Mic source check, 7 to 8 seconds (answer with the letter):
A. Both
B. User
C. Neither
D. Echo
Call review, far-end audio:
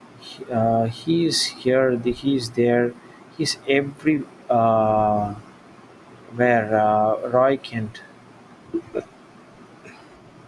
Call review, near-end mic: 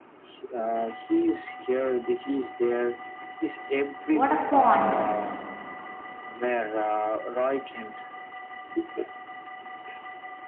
D